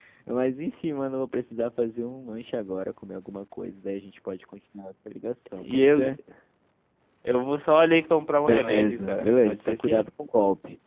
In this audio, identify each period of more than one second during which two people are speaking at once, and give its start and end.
8.5-10.1

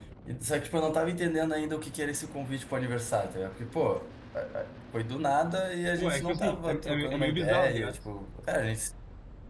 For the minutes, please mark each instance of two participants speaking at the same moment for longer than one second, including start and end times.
6.0-8.0

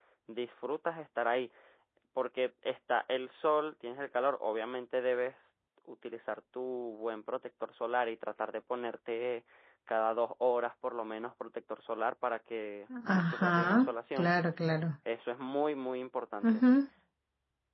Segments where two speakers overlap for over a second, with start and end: 13.1-14.3

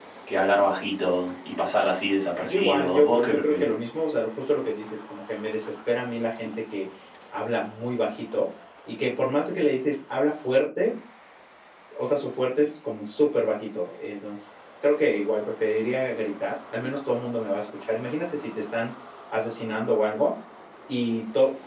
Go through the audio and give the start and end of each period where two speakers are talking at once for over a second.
2.4-3.6

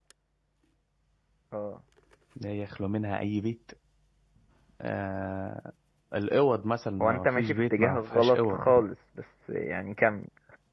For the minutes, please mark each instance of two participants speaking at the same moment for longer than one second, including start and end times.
7.0-8.8

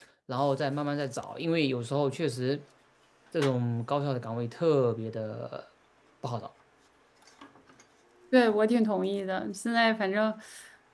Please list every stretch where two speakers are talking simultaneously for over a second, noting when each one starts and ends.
none

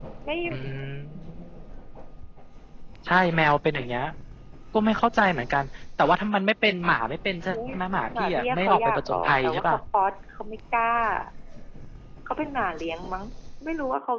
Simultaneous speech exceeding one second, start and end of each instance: 8.2-9.8

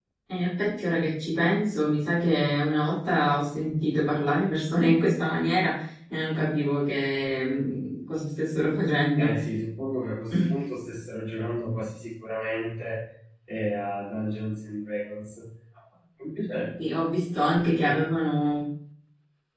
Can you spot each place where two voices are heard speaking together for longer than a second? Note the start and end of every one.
none

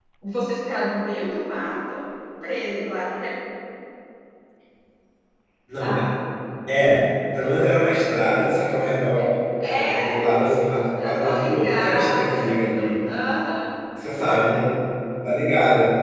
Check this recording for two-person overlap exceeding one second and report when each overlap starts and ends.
11.0-12.9

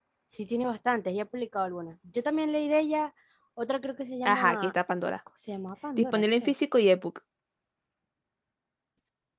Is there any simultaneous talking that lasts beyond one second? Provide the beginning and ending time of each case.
none

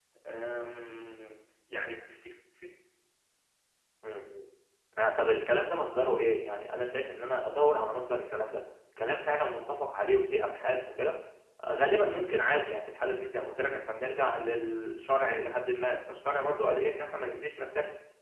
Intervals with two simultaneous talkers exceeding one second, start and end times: none

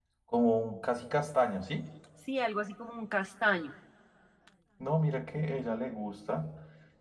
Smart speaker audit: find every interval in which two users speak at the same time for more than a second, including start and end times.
none

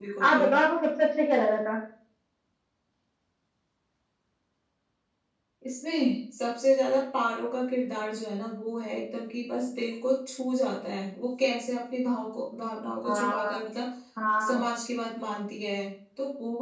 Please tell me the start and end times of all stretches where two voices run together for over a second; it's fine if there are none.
none

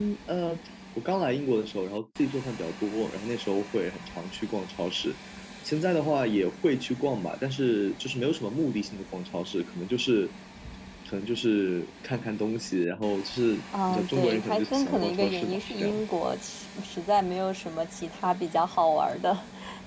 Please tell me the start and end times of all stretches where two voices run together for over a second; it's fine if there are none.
13.9-16.0

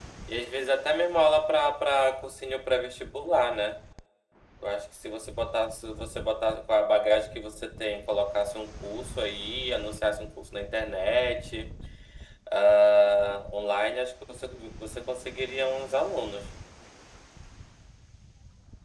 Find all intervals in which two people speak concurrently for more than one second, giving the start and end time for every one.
none

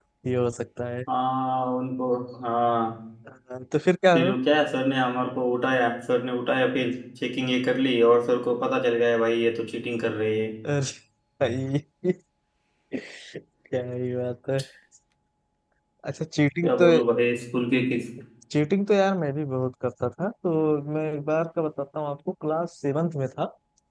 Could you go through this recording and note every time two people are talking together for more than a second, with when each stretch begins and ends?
none

